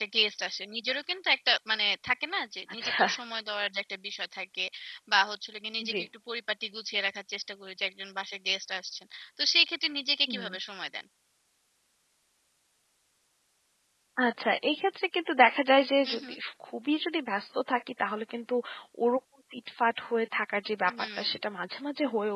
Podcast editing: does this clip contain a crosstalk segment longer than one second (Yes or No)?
No